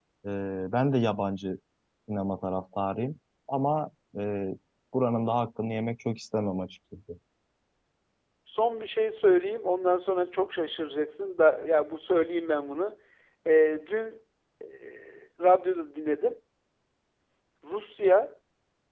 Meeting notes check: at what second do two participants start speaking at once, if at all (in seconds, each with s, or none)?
none